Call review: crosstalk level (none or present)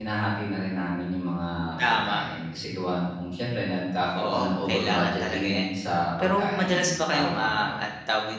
present